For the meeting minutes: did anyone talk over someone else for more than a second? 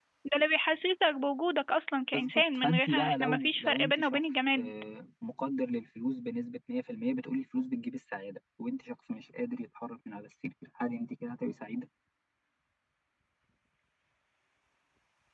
Yes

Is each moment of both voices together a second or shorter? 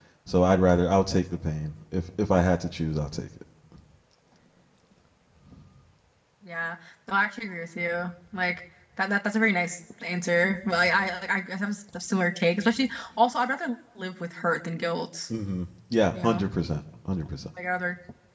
Yes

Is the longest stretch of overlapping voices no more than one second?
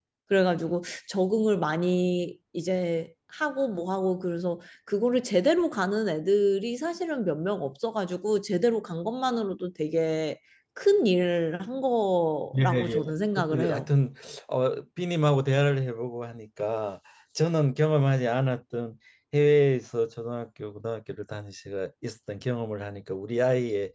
No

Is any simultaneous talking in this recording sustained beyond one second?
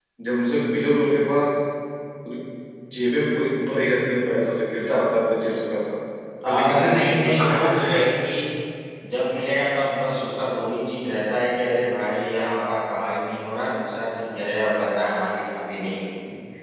Yes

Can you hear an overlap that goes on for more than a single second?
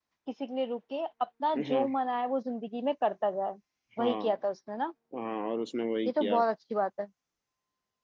No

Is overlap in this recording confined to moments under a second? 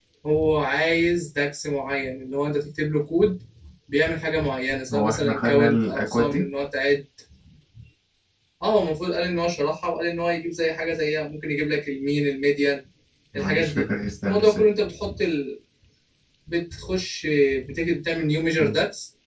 No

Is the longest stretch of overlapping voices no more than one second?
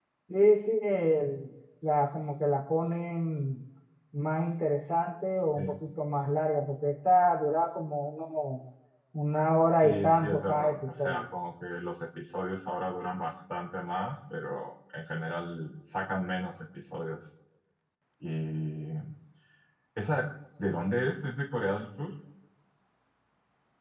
No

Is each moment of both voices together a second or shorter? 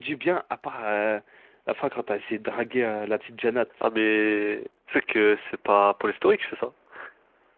Yes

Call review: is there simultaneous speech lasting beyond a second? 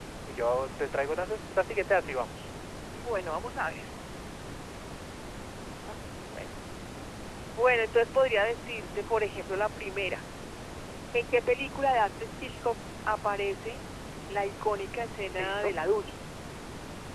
No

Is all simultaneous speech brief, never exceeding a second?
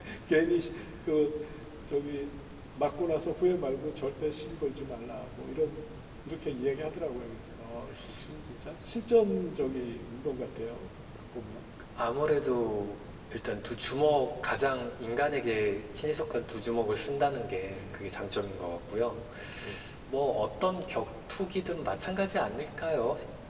Yes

